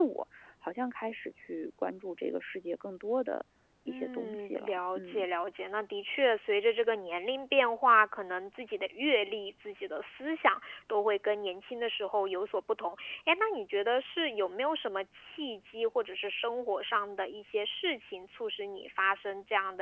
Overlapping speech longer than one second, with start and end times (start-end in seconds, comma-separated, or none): 3.9-5.2